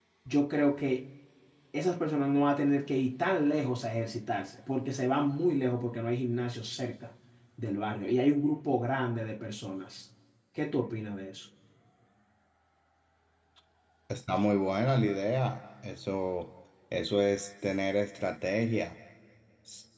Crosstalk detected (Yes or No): No